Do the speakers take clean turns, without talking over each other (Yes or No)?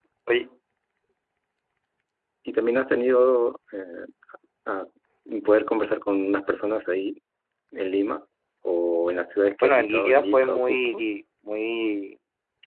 No